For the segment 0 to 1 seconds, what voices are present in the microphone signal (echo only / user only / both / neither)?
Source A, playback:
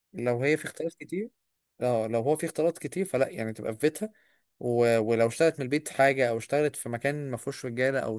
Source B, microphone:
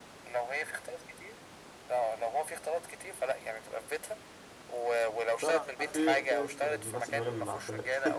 echo only